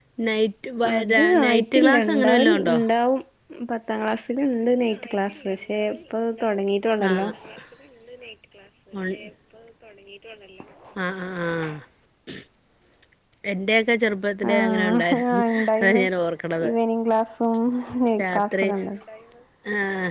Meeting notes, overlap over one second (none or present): present